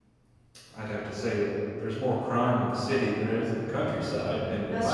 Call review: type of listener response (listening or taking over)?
listening